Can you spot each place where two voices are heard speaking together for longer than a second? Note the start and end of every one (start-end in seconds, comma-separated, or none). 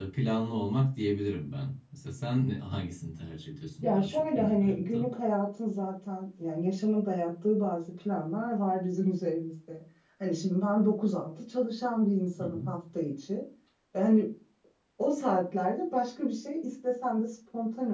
3.8-5.1